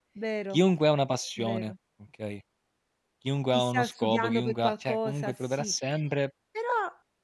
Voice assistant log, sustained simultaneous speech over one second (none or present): present